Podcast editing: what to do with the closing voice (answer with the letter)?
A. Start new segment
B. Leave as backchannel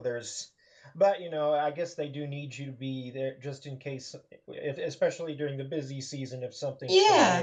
A